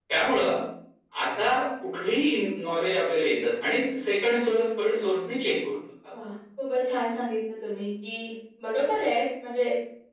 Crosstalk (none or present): none